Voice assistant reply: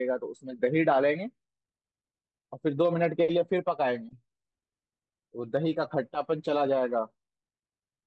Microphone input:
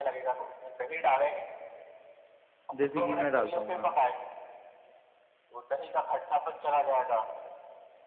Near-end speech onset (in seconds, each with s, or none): 2.8 s